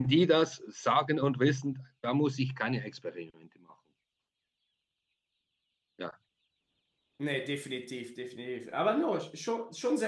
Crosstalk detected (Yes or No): No